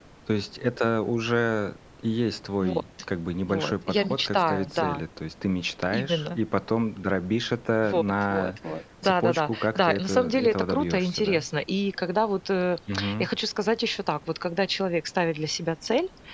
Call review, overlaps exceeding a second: present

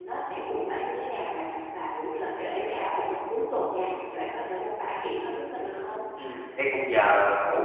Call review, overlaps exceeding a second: none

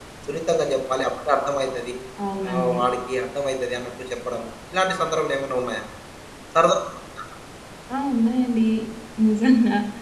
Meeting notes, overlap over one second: none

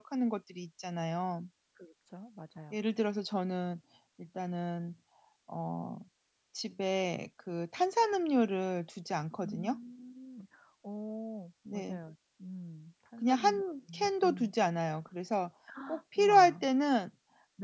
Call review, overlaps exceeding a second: present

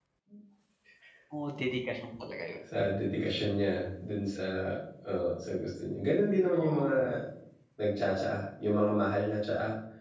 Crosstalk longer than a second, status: none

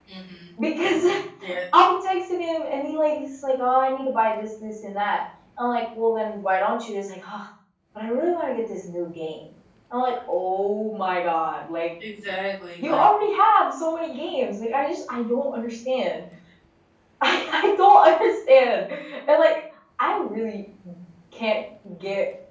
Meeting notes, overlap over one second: none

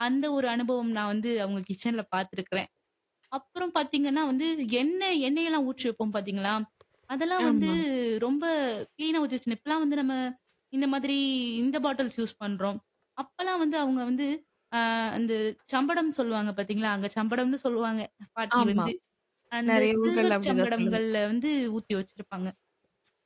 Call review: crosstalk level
present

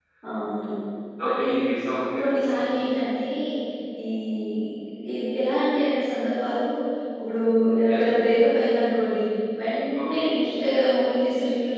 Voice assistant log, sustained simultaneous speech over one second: none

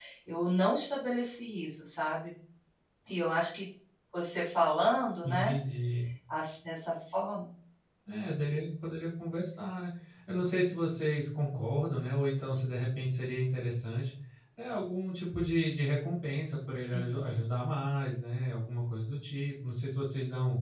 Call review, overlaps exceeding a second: none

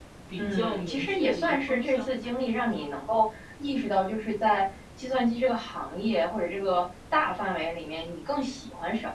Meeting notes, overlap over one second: present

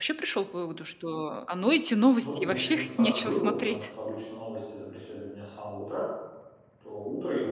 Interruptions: present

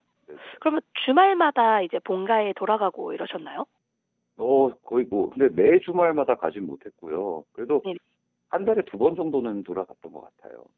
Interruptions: none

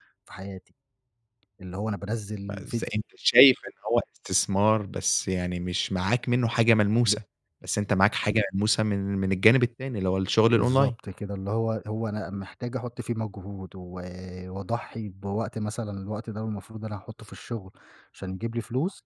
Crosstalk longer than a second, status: none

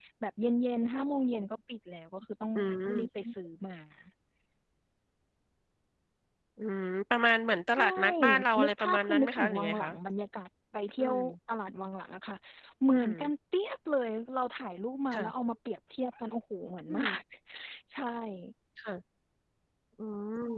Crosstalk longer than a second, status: present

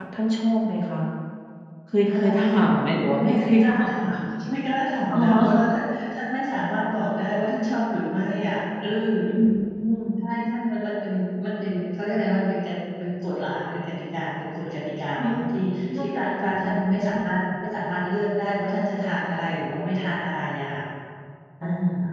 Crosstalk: present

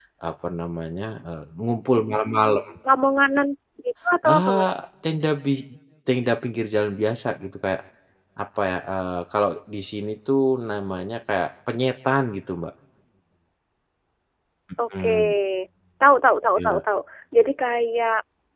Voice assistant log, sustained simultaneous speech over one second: none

